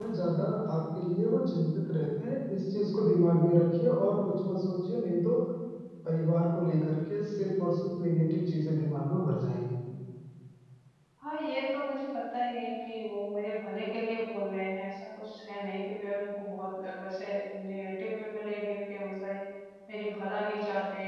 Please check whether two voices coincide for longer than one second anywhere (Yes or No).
No